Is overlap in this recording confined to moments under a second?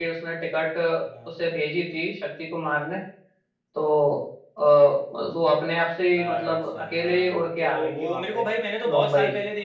No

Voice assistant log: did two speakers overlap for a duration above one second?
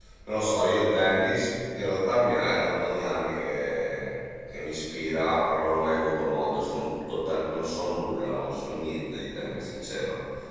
No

